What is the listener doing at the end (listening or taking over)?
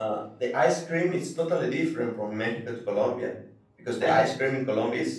listening